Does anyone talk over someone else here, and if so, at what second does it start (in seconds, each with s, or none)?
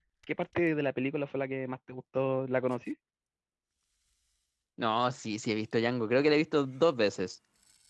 none